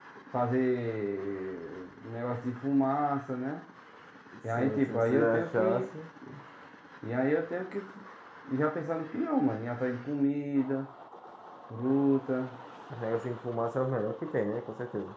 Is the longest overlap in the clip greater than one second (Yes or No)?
Yes